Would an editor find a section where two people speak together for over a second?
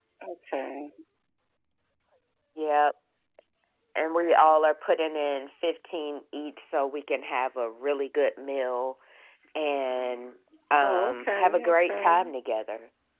Yes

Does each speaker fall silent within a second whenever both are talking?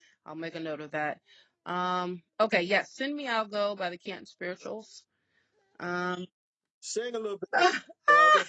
Yes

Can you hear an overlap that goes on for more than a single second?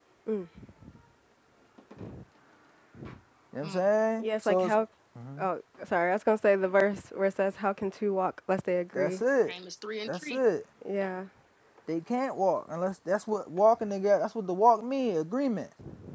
No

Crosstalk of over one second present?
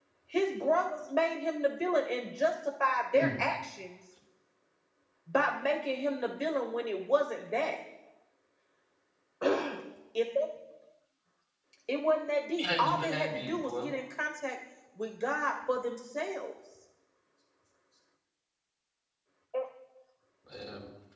Yes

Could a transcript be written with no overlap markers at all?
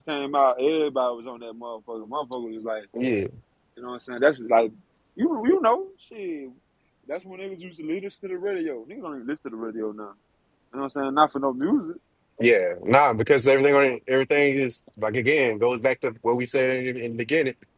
Yes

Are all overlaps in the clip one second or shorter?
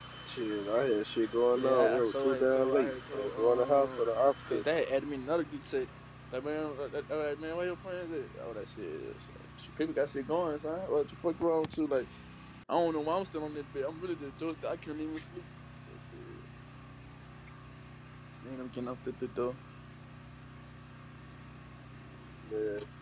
No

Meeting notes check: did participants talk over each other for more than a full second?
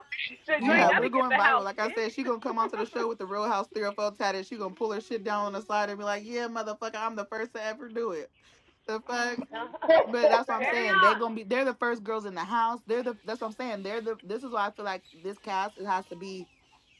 Yes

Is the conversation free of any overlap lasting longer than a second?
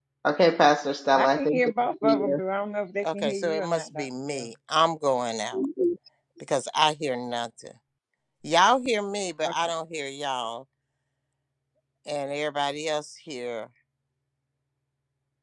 No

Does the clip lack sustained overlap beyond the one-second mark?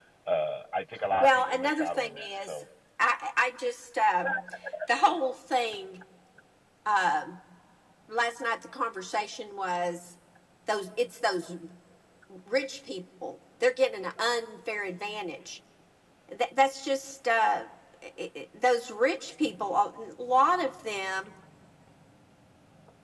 No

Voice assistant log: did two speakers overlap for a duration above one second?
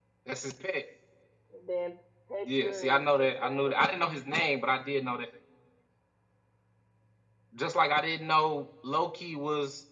Yes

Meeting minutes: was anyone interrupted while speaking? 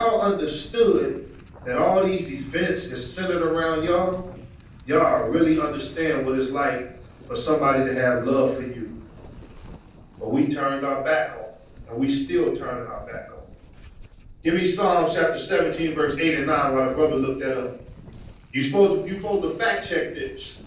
No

